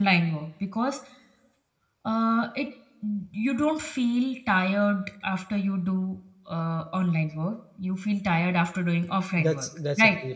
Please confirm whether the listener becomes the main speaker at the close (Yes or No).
Yes